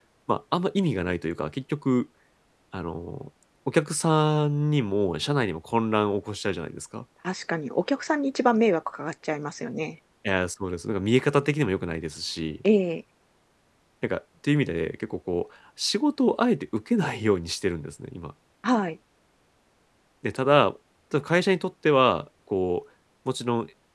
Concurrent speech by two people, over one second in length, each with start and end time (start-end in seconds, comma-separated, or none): none